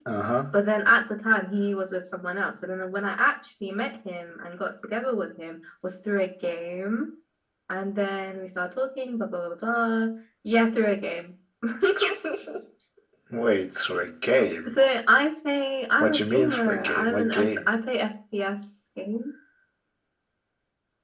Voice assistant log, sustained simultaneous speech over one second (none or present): present